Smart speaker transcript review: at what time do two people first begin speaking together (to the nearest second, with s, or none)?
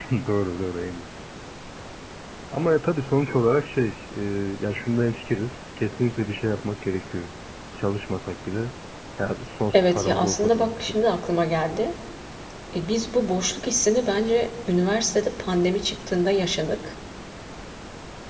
10 s